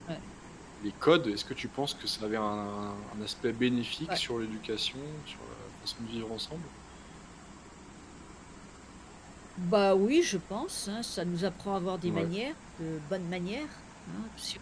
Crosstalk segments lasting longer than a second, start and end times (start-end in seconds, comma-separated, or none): none